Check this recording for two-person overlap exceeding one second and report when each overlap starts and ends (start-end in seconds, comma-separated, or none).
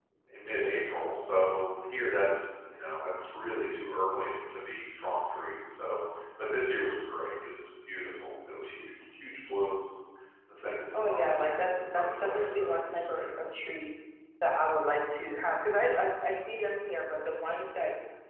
10.9-13.2